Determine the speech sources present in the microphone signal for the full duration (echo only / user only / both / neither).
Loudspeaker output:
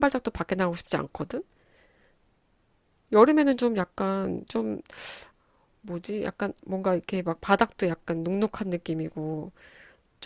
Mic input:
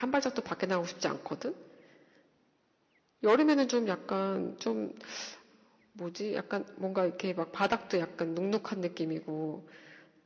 echo only